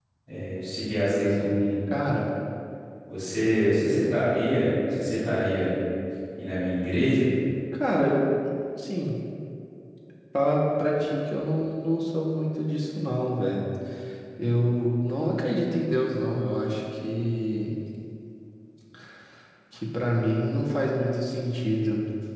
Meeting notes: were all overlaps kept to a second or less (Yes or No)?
Yes